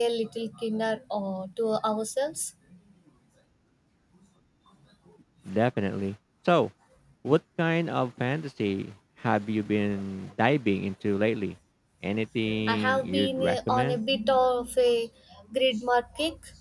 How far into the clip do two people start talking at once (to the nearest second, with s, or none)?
13 s